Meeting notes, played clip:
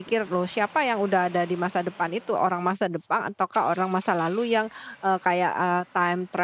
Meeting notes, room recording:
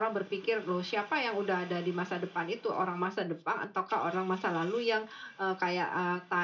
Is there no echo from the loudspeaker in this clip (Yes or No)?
No